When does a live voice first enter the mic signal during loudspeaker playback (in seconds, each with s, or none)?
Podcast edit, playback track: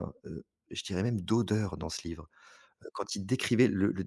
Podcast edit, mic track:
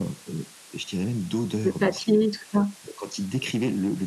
1.6 s